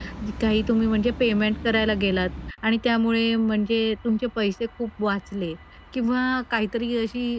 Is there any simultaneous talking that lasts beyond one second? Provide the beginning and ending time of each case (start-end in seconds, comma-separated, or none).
none